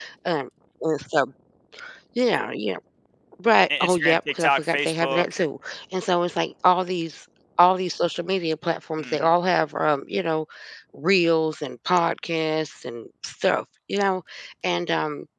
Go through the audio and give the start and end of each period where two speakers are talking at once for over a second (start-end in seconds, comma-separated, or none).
3.8-5.2